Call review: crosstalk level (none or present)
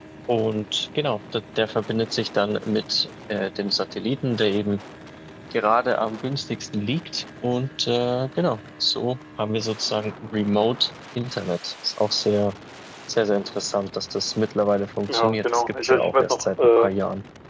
present